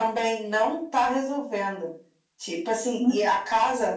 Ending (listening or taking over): listening